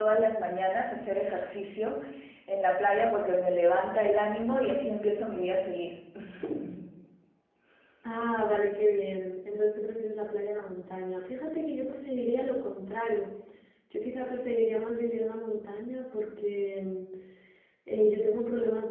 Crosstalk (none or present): none